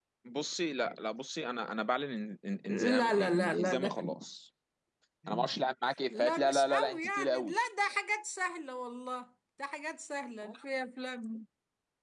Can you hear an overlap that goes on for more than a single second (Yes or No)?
Yes